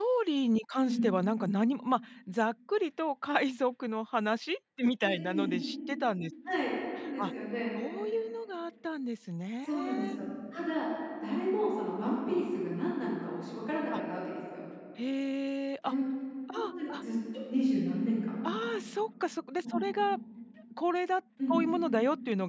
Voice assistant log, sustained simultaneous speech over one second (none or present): none